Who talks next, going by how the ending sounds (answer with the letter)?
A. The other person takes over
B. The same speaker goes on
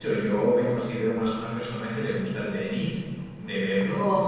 B